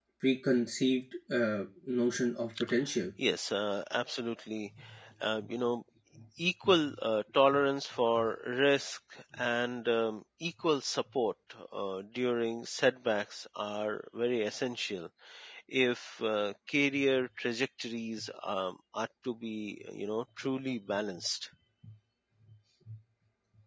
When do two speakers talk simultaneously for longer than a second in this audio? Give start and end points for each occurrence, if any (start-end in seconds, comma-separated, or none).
none